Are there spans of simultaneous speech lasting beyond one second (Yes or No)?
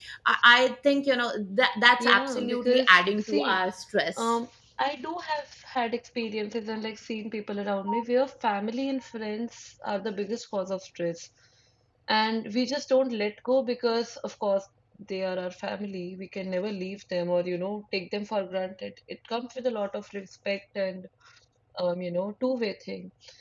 Yes